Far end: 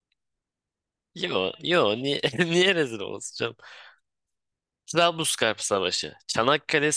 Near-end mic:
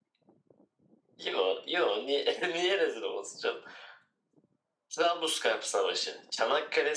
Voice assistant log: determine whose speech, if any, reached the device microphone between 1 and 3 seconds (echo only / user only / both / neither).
echo only